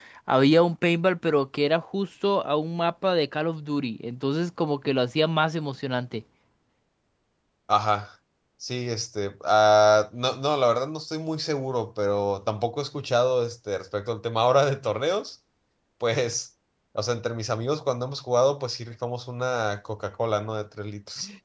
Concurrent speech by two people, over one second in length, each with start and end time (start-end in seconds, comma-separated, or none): none